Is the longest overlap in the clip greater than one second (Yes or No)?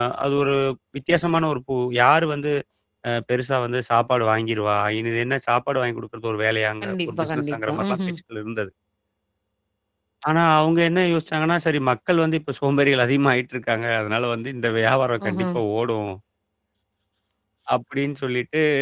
Yes